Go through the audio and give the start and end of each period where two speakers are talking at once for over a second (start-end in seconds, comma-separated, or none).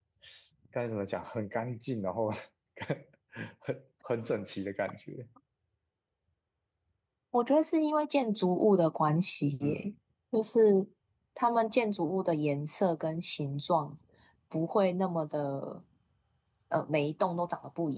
none